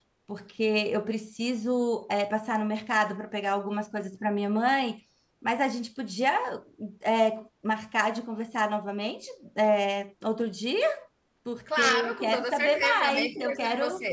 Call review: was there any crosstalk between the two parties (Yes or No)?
Yes